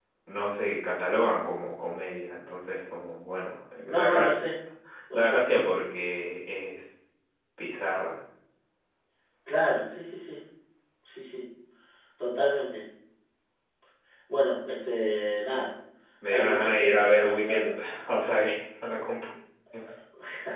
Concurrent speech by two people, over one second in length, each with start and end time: 16.3-17.6

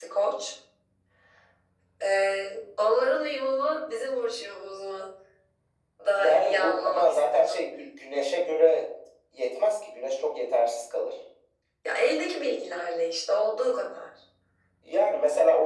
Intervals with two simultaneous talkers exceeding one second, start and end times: 6.2-7.6

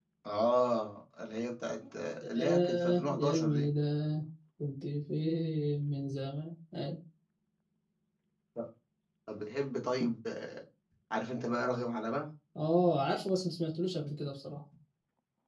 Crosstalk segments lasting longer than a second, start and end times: 2.4-3.7

